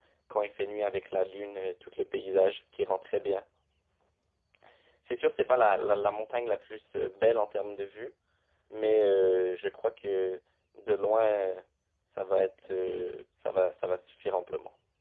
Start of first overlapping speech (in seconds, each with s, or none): none